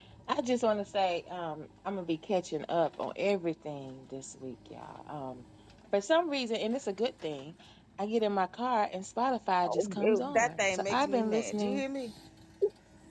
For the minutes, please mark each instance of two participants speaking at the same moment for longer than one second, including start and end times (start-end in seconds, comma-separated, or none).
9.6-11.8